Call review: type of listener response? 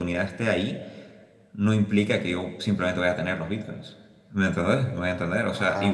listening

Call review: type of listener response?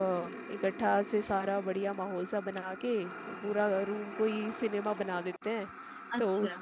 listening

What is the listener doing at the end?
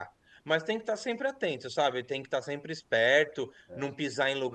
listening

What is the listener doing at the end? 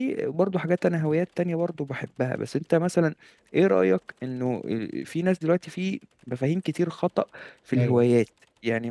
listening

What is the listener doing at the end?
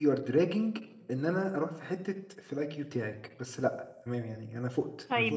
taking over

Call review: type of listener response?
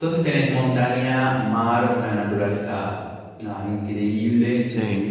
listening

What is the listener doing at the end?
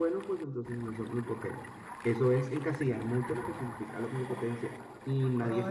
taking over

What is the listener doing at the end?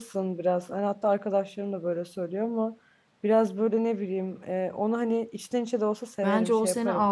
taking over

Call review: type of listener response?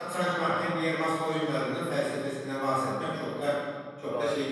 taking over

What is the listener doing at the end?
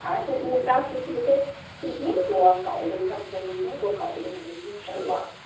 taking over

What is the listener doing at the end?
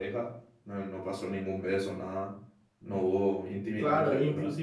taking over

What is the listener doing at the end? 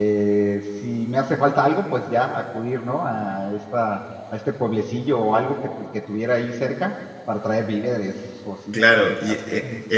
taking over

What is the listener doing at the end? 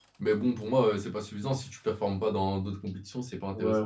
taking over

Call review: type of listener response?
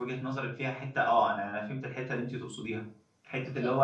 listening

